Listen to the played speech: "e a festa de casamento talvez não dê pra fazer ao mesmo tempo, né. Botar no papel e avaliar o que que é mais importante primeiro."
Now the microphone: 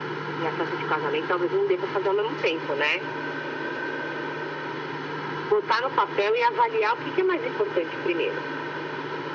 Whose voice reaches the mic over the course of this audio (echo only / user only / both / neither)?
echo only